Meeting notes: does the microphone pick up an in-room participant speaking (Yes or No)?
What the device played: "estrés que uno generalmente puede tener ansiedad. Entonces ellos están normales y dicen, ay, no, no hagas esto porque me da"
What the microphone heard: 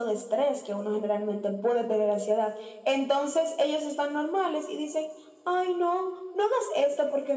No